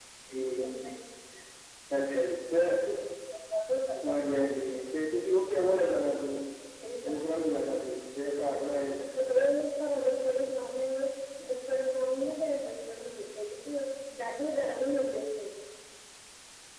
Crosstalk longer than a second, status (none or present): none